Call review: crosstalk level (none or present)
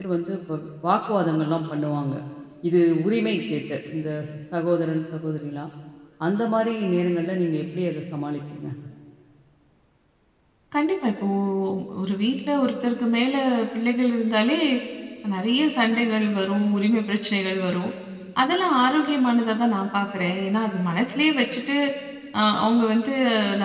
none